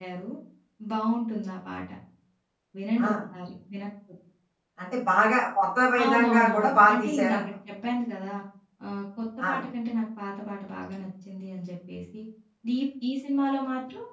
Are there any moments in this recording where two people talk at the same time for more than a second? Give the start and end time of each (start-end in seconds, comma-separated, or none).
6.0-7.4